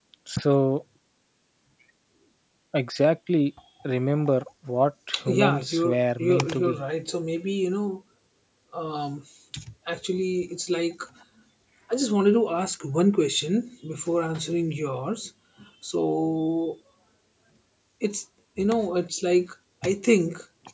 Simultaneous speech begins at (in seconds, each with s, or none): 5.1 s